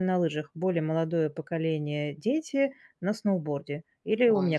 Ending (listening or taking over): taking over